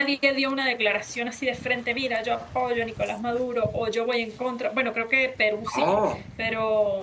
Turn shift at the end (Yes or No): No